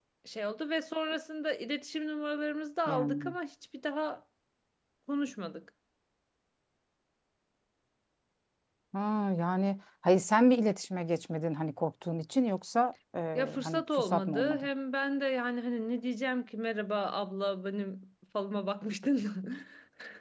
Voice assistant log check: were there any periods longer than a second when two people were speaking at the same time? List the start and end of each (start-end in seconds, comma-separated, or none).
13.4-14.7